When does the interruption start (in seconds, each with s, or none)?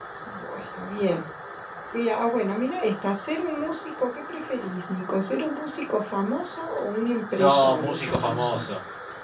7.4 s